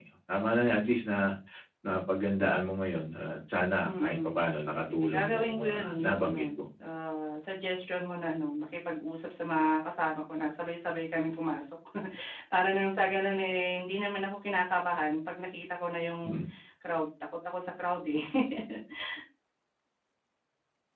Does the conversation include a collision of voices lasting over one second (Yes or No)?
Yes